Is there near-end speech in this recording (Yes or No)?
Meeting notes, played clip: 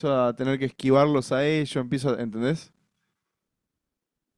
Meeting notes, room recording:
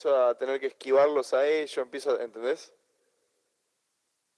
No